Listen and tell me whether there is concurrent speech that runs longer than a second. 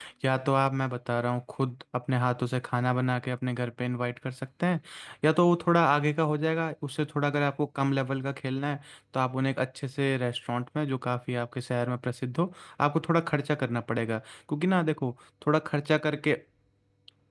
No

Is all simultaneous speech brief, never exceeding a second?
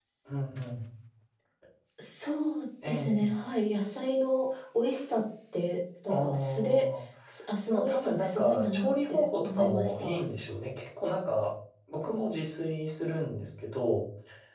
No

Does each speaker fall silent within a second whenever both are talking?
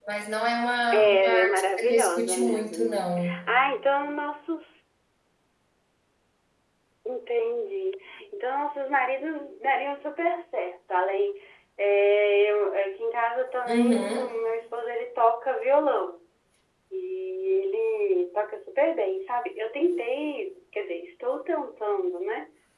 No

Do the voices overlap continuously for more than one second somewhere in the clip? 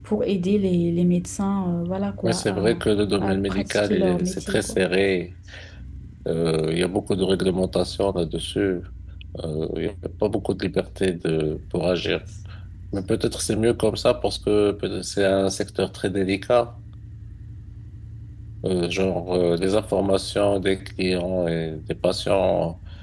Yes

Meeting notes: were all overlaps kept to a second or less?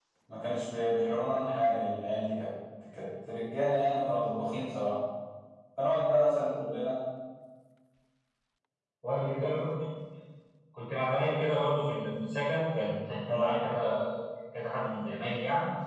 Yes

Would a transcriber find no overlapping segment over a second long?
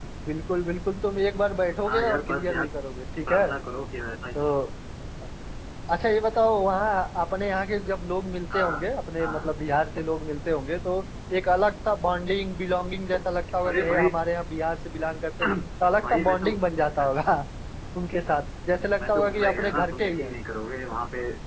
No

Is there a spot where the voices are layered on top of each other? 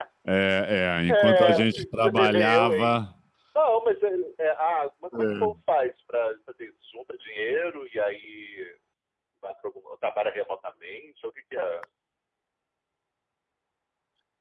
Yes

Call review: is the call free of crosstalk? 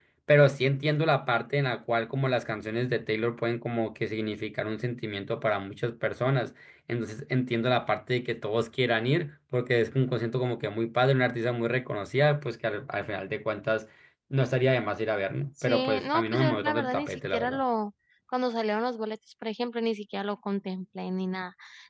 No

